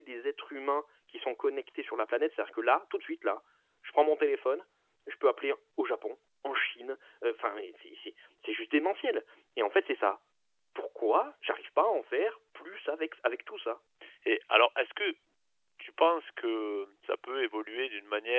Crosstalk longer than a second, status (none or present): none